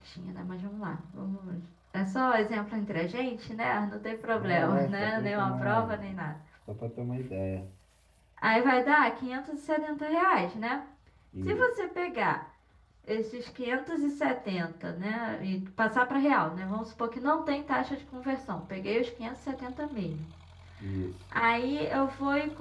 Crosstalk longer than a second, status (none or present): present